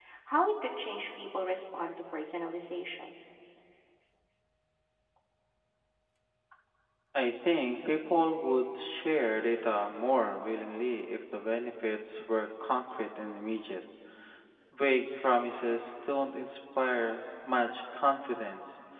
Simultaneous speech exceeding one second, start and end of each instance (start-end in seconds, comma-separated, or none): none